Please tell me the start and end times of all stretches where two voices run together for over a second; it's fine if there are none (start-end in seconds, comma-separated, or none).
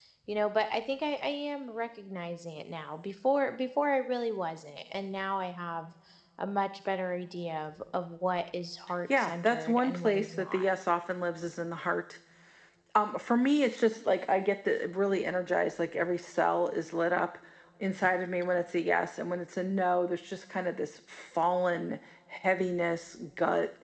9.2-10.7